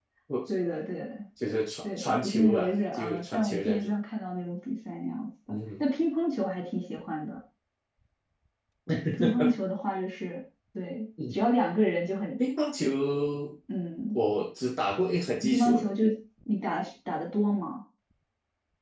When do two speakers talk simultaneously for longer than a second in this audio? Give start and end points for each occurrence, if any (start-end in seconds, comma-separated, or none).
2.0-3.9